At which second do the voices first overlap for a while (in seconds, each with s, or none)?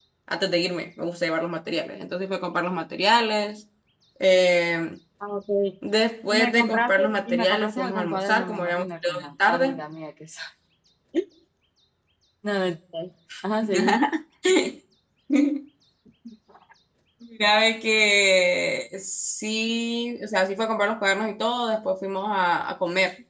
6.3 s